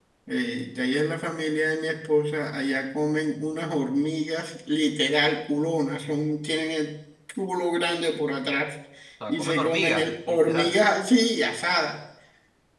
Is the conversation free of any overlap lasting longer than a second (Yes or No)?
No